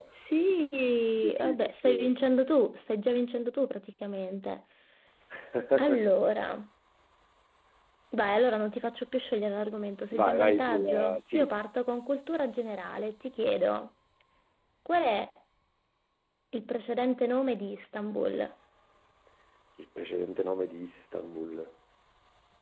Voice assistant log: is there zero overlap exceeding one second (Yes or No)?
No